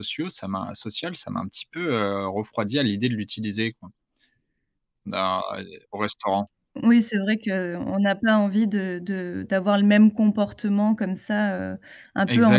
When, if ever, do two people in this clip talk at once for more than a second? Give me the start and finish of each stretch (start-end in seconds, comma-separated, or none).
none